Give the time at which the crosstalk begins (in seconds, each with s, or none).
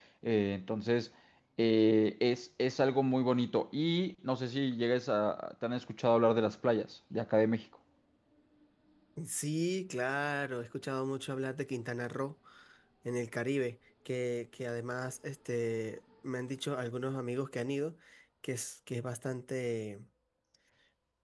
none